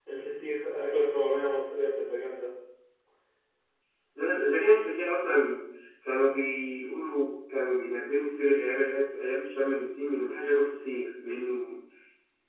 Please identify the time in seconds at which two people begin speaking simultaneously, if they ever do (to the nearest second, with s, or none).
none